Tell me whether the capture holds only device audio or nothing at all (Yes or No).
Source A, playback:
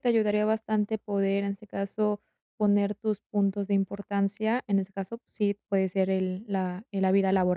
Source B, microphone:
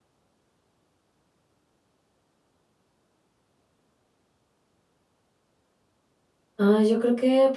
No